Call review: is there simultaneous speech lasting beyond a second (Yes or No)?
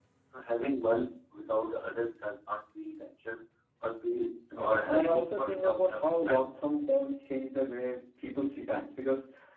Yes